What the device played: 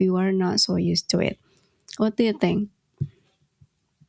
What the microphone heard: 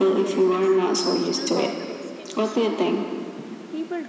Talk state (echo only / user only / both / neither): both